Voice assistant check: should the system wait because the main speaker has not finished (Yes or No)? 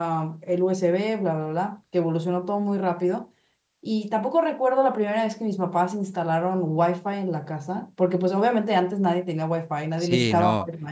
No